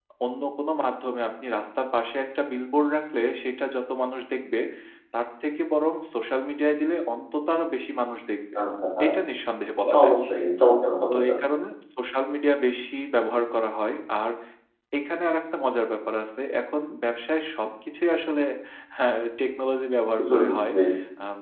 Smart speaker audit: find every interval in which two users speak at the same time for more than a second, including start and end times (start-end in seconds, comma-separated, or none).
none